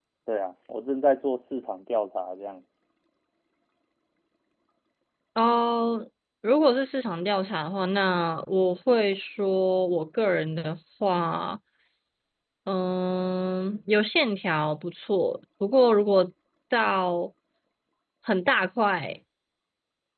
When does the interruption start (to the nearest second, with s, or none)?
none